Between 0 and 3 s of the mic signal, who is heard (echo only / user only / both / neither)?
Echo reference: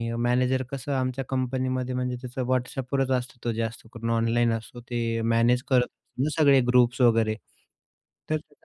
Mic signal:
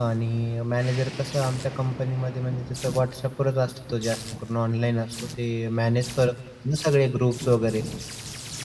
echo only